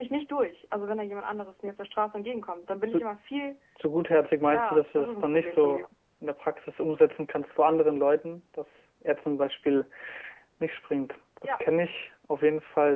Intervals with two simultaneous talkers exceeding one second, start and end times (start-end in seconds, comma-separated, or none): 4.5-5.8